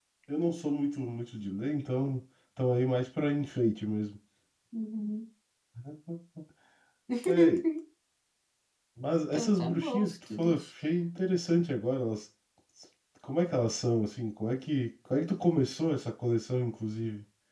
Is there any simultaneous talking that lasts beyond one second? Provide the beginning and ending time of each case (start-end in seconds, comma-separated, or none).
9.3-10.7